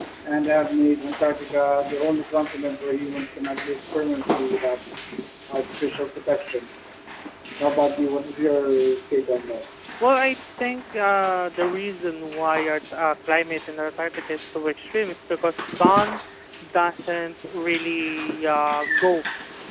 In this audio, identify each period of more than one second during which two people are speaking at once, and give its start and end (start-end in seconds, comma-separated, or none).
none